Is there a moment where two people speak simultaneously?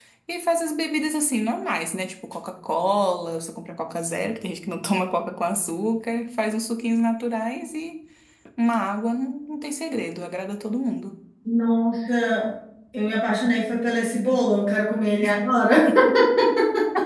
No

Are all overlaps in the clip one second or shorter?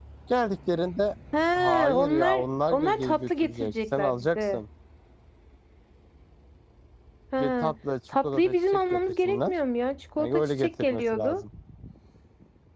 No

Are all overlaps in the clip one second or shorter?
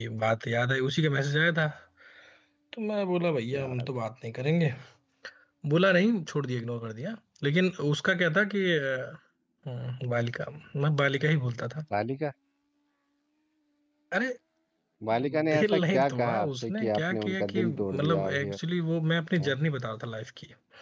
No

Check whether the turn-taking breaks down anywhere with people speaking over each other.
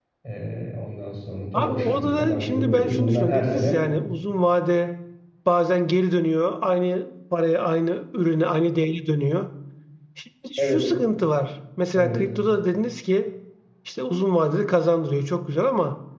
Yes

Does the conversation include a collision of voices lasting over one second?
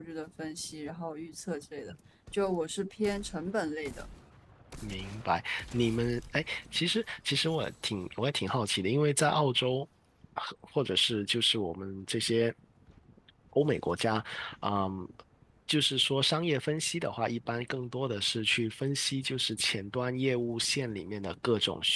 No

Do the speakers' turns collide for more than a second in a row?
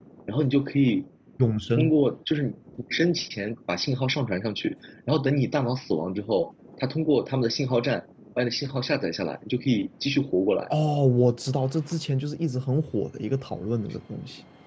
No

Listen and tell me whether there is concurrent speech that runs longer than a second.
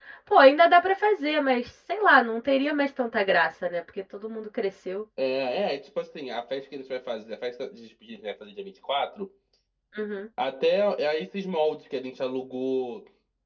No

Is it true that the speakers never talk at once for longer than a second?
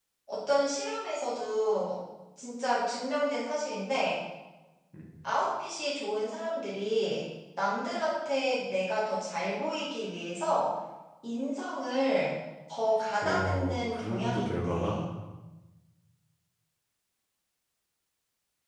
No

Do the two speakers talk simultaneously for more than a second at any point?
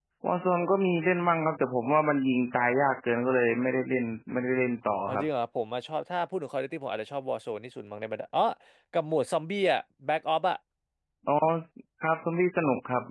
No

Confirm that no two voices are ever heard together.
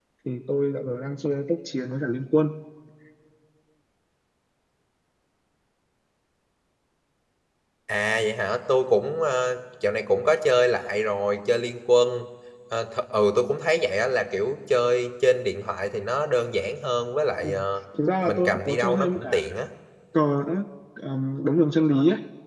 No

